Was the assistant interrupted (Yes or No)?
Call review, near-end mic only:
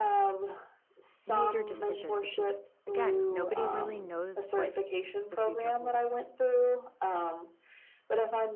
Yes